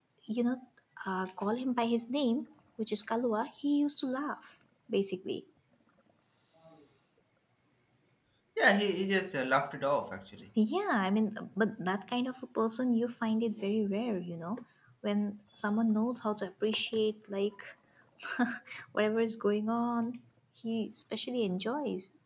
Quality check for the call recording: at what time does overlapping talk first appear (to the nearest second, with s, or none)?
none